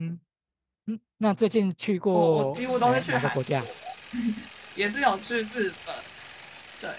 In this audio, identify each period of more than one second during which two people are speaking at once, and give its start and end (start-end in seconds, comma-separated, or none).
2.1-3.7